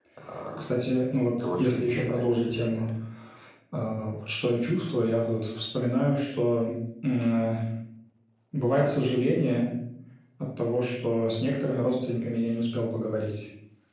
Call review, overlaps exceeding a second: present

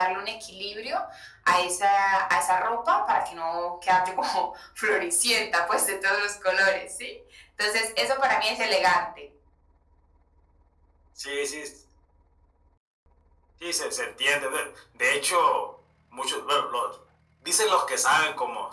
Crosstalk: none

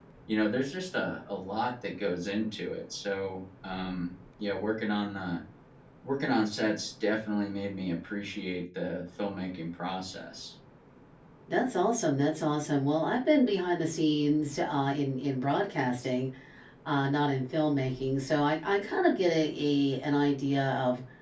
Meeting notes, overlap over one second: none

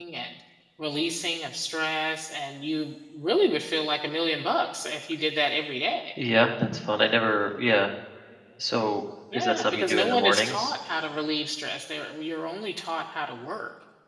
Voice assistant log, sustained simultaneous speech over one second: present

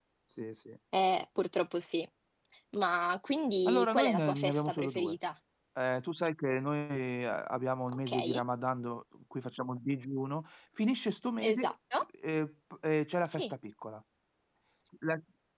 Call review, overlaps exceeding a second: present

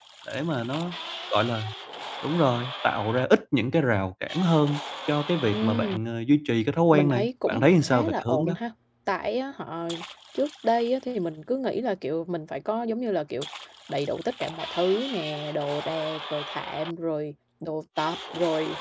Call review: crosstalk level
present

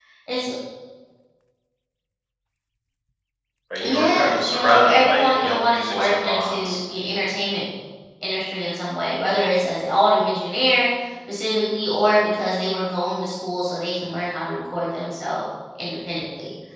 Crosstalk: present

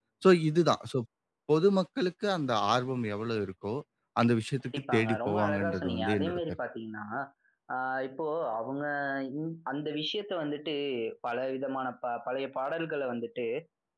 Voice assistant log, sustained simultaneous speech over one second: present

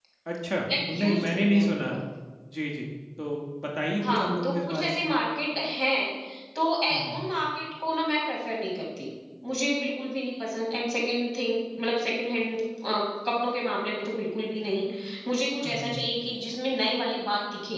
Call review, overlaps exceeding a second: present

